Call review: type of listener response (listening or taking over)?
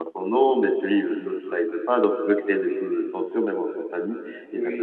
listening